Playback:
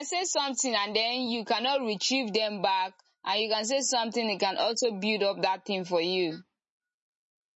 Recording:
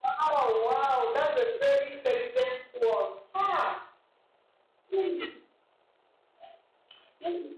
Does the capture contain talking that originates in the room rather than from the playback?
Yes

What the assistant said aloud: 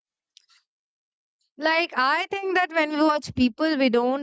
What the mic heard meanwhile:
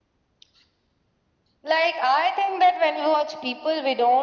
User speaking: No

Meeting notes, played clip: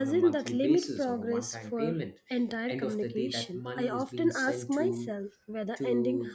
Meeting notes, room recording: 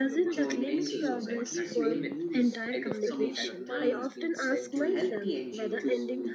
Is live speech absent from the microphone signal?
No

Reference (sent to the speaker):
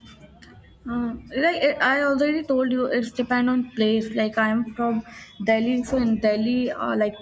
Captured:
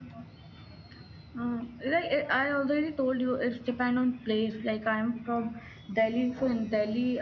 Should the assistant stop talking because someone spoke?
No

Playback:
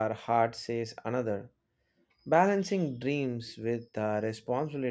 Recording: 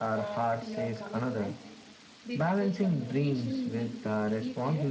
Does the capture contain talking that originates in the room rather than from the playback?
Yes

